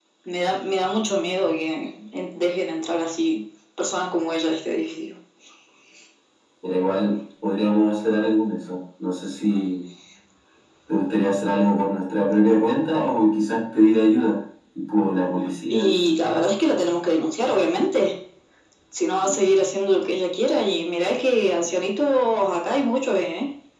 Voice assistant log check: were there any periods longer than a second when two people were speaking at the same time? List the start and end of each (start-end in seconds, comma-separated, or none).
none